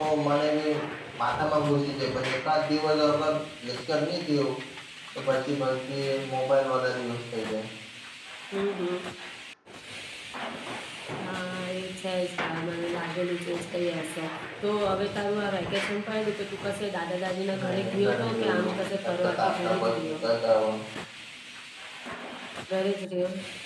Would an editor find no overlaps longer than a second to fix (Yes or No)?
No